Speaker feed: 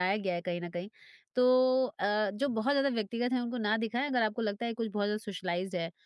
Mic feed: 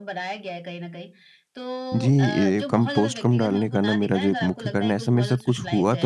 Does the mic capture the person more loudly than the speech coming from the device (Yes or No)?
Yes